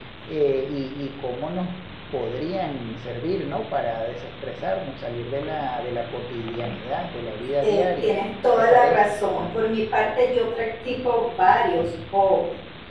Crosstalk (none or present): present